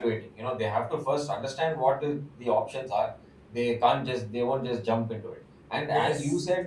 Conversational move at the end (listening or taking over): listening